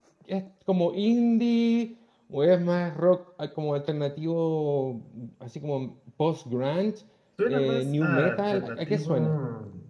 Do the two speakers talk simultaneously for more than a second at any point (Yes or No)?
Yes